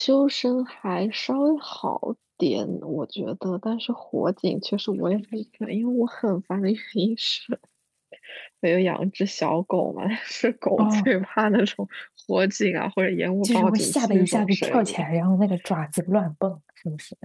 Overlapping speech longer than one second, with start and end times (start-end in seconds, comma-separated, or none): 13.4-15.0